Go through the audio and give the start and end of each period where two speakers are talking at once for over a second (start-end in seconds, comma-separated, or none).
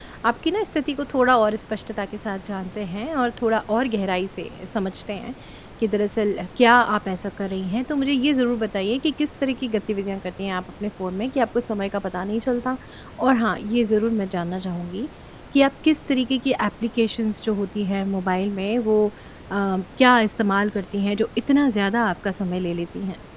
none